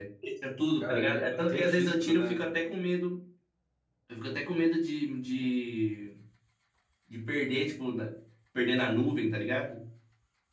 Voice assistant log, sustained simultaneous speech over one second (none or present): present